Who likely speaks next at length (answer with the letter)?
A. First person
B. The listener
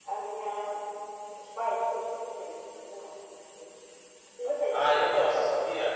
B